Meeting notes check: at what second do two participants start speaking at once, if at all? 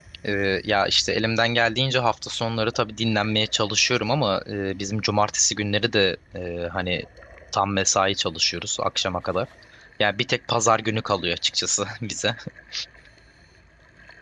none

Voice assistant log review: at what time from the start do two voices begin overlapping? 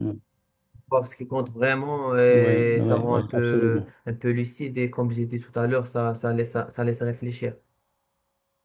2.3 s

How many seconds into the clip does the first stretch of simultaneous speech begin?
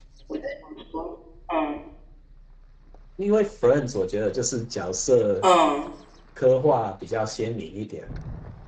none

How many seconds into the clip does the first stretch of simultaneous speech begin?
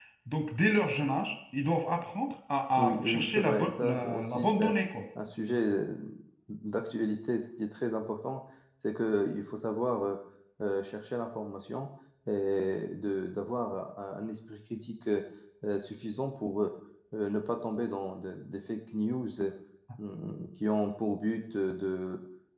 2.8 s

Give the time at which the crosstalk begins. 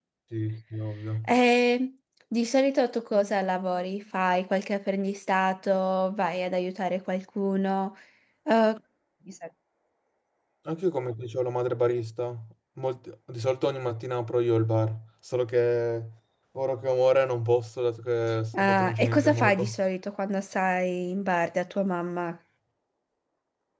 18.5 s

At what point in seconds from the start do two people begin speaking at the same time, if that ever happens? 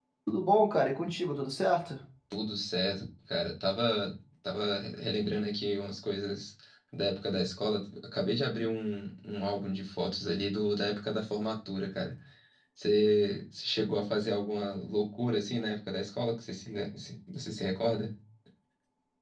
none

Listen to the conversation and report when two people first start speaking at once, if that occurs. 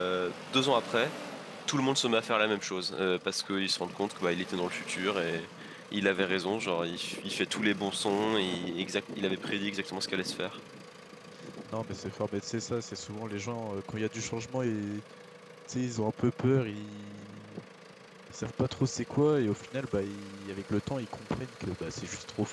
none

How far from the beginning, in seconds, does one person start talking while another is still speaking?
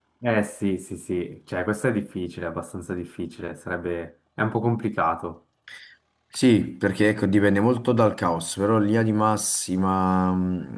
none

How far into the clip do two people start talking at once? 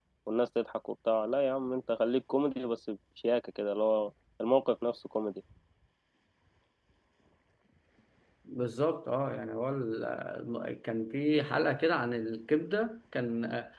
none

